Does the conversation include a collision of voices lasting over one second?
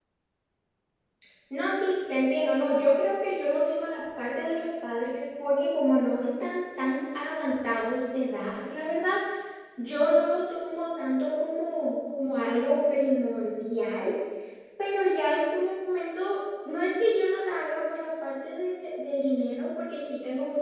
No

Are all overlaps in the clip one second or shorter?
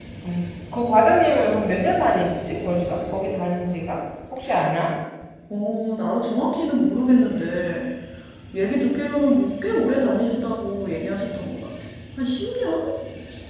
Yes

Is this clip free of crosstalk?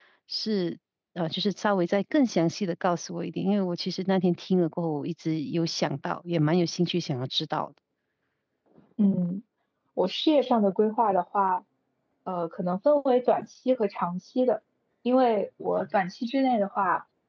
Yes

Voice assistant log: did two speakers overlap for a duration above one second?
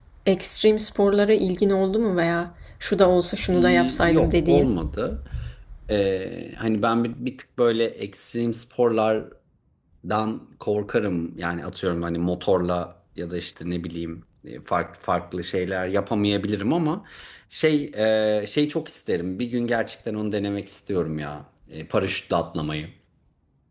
Yes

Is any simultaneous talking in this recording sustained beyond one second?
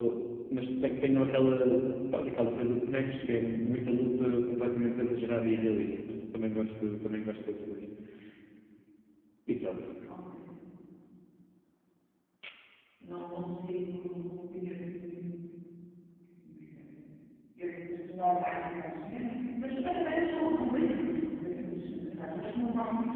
No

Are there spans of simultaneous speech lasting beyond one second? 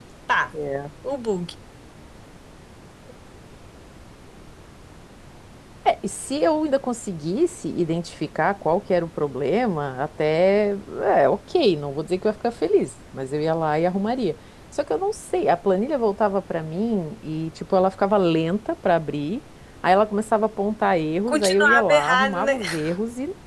Yes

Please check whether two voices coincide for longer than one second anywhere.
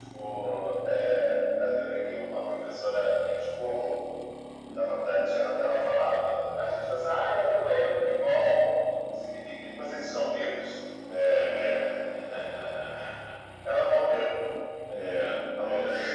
No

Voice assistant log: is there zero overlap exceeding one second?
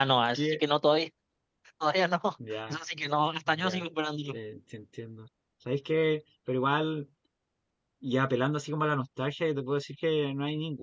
Yes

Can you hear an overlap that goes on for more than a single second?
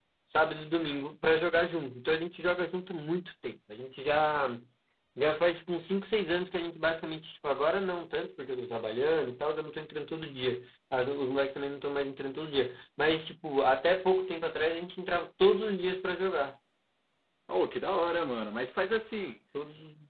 No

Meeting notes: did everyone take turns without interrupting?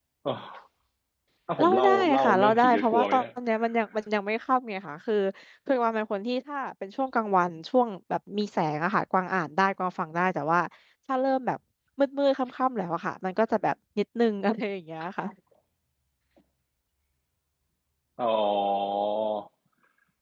No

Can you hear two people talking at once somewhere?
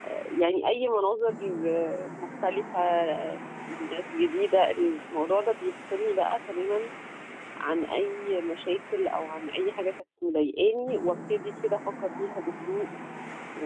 No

